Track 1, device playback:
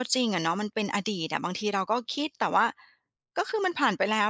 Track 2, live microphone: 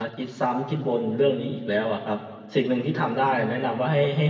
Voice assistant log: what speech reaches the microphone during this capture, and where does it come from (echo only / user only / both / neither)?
user only